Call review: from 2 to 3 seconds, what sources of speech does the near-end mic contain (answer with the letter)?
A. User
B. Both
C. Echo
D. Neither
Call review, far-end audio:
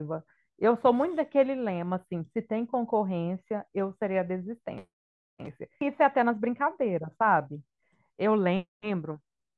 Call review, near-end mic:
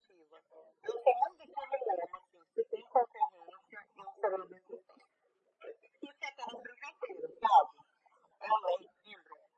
C